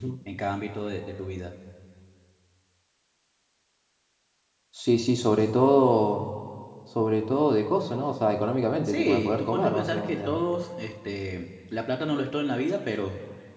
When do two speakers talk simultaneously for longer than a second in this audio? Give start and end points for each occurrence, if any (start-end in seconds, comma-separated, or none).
8.9-10.3